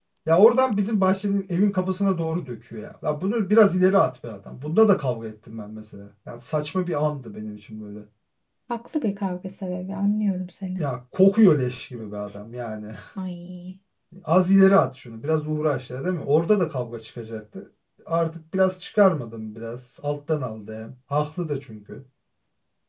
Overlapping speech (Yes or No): No